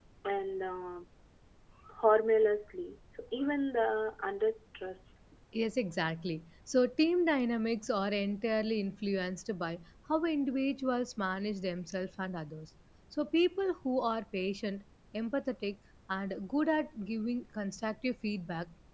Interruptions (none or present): none